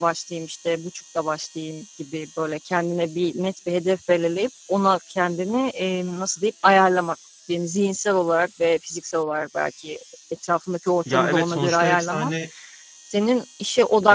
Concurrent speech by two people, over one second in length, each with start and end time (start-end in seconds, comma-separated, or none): 11.1-12.3